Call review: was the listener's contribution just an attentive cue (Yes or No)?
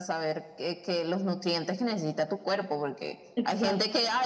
Yes